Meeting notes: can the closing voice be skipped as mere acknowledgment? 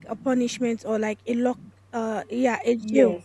No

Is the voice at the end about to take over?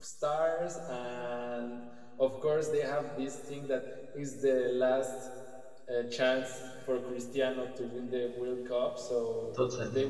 No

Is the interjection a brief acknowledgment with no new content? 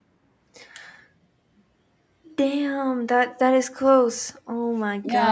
No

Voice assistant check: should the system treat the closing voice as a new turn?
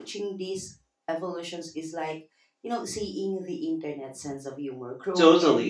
Yes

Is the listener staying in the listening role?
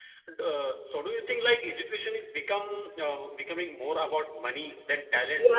No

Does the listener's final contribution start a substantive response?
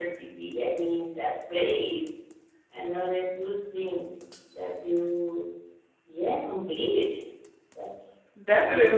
Yes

